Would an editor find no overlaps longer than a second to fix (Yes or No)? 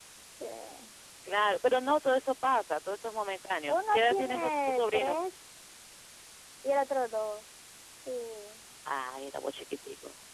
No